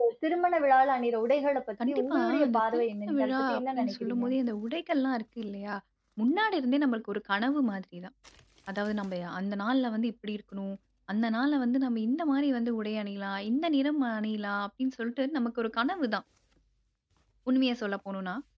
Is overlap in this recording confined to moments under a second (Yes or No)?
No